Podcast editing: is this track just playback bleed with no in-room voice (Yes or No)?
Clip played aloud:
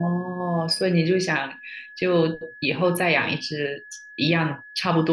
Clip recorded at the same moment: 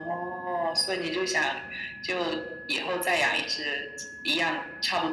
Yes